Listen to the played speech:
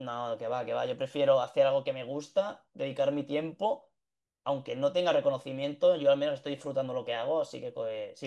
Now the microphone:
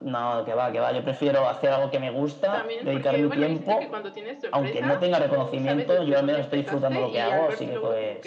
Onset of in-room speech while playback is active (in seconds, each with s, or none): 2.5 s